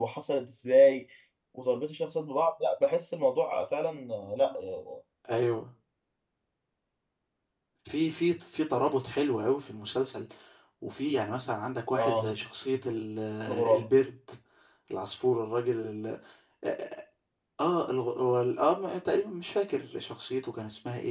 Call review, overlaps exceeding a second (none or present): none